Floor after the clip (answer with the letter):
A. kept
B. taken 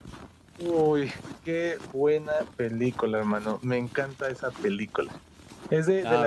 A